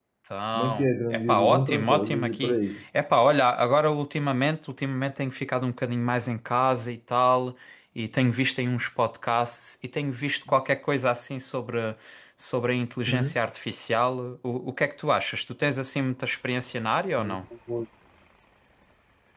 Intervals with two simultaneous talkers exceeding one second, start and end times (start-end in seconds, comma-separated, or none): 0.5-2.8